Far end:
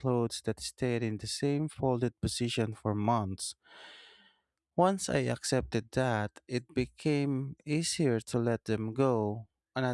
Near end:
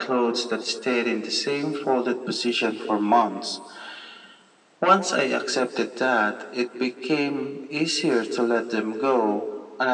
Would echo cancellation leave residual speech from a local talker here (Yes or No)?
No